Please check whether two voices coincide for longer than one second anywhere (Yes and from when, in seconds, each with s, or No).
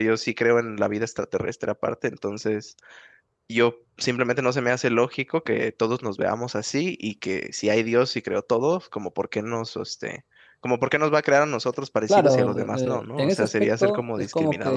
Yes, from 12.1 s